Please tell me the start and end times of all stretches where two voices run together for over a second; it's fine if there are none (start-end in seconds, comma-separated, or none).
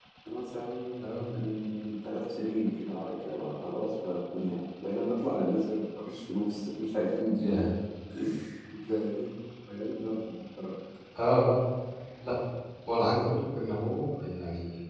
none